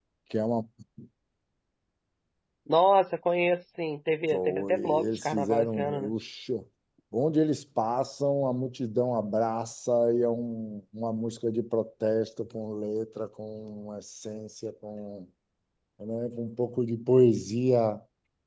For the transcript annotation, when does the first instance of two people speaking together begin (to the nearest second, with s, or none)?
4 s